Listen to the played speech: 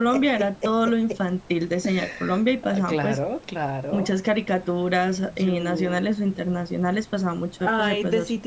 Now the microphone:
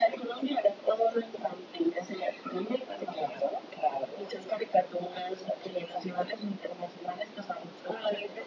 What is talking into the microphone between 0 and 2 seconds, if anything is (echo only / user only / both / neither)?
echo only